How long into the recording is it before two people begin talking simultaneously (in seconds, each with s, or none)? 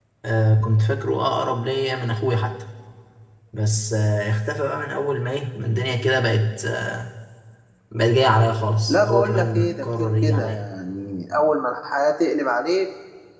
8.9 s